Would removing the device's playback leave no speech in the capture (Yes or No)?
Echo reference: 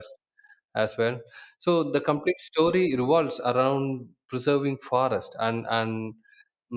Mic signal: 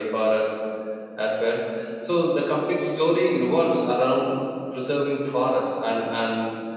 Yes